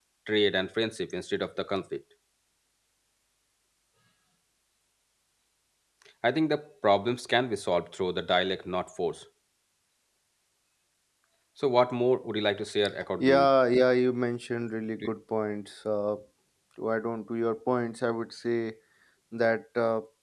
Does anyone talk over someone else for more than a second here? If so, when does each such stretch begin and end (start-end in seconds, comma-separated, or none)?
none